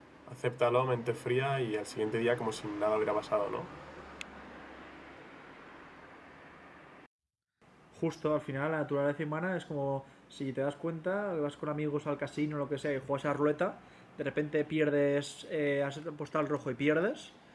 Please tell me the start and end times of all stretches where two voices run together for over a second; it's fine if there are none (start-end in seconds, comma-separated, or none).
none